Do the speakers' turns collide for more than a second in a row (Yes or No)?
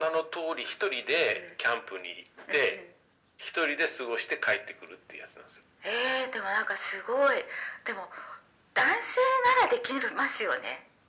No